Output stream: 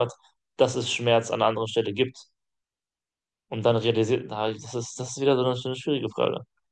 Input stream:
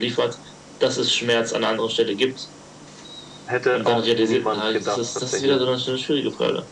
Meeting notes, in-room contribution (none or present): present